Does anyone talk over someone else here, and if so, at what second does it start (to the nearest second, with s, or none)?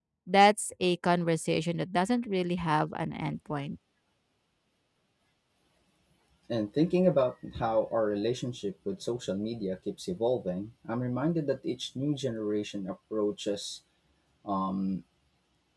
none